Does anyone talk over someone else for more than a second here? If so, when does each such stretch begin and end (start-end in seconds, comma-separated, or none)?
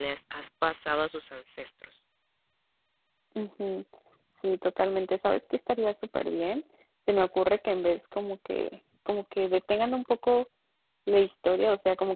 none